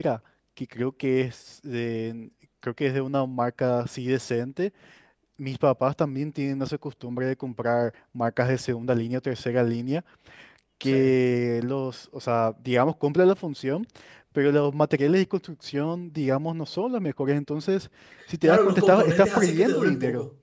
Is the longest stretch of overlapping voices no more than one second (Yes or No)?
No